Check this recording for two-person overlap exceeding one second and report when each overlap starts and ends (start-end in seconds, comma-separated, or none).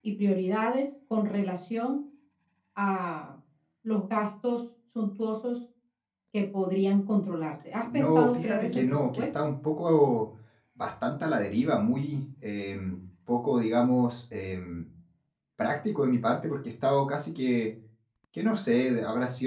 7.9-9.2